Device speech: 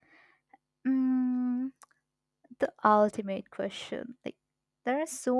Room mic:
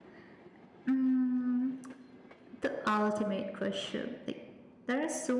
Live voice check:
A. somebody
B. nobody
B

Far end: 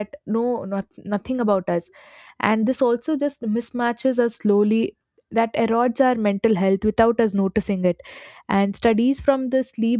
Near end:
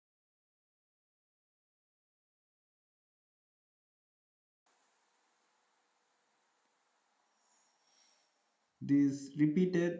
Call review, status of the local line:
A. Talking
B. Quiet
A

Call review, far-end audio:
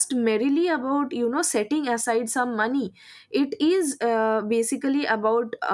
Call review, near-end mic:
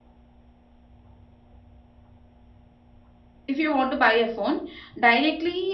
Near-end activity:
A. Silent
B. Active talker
B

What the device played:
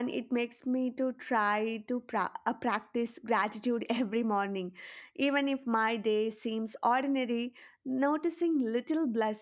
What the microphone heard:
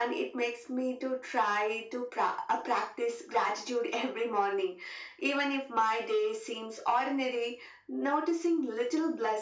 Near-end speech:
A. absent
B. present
A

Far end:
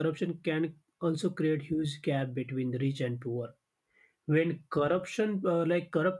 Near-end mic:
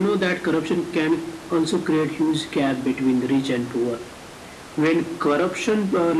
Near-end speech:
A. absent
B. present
A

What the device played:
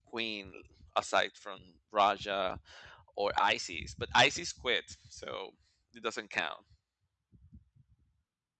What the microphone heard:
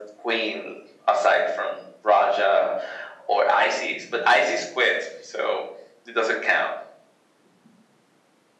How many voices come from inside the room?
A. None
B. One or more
A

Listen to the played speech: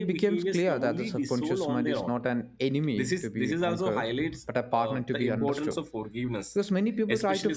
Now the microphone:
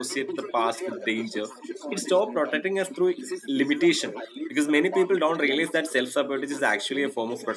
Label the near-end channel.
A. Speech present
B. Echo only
A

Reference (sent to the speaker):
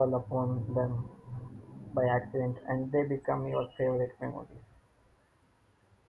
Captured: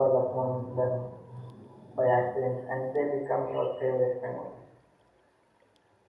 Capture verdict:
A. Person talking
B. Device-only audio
B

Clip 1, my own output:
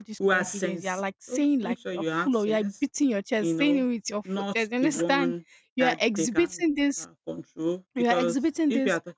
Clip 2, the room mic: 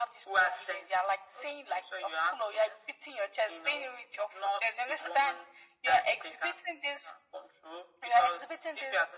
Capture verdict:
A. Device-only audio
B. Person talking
A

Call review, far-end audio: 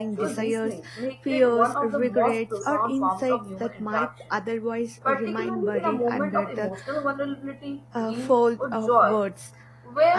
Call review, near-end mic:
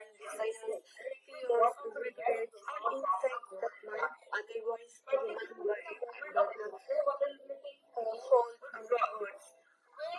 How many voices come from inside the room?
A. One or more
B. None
B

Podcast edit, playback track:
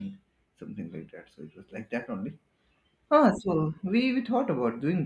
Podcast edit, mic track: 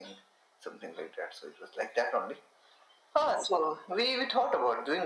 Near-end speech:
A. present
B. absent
B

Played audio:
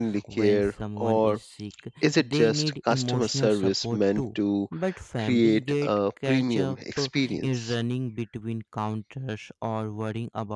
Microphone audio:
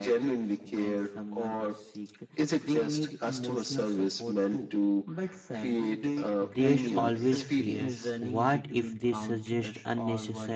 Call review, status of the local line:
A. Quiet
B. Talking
B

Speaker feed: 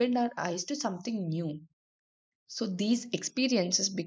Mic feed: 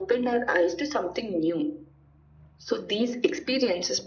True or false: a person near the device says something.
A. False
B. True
A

